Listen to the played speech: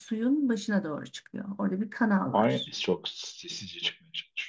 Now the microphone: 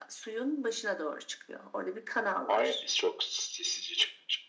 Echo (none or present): present